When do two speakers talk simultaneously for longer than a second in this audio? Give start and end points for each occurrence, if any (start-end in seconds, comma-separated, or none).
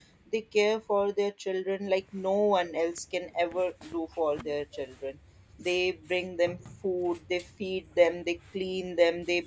none